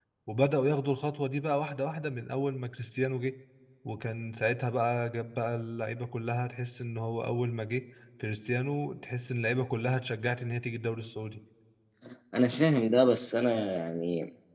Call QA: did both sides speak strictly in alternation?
Yes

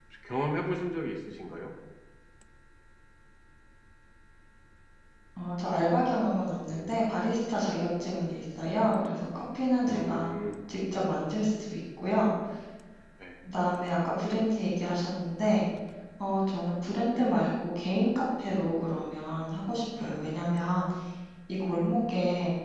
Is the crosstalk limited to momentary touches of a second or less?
Yes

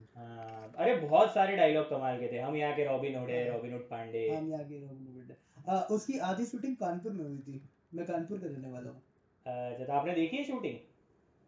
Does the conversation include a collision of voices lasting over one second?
No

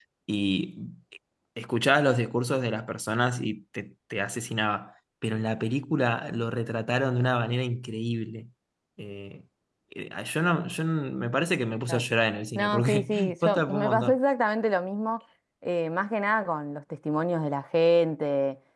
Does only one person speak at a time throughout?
No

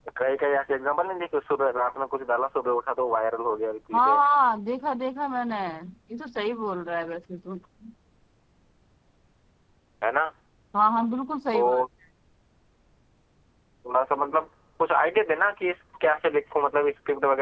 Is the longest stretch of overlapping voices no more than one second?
Yes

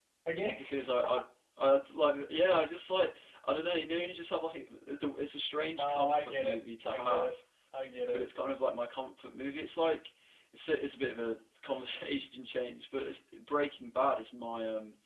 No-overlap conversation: No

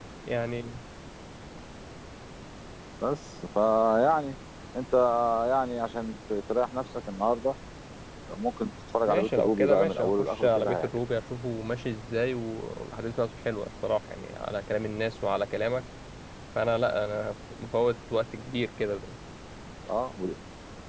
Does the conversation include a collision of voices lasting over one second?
Yes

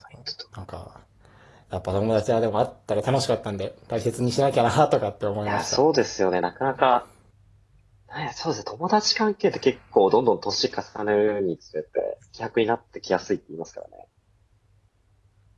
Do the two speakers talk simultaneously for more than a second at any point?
No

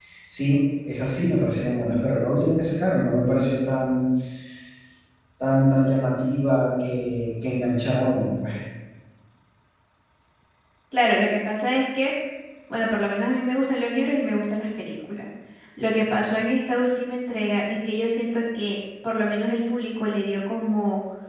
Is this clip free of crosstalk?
Yes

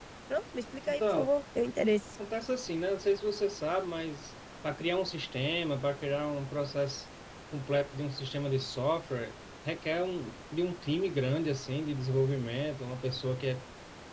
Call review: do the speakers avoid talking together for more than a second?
Yes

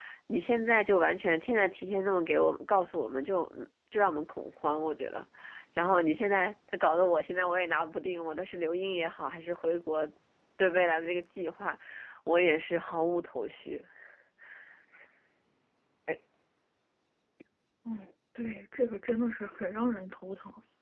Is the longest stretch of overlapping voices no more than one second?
Yes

